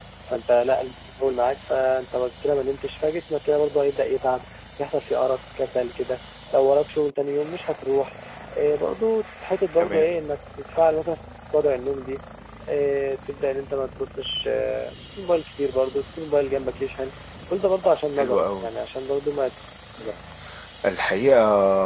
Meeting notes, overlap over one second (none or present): none